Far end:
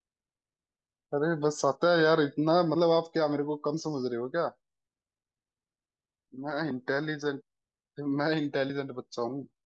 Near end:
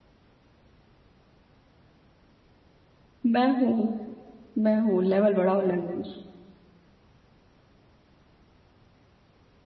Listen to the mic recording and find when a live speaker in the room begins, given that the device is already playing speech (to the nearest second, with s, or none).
3 s